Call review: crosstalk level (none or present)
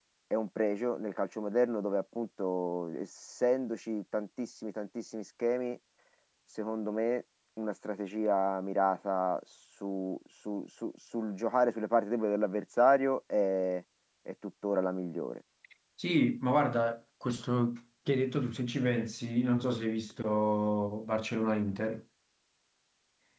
none